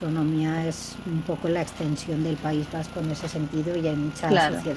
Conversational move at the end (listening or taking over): listening